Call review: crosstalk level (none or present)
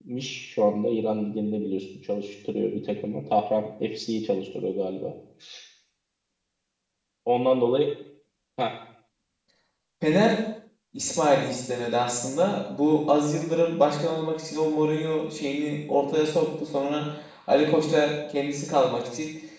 none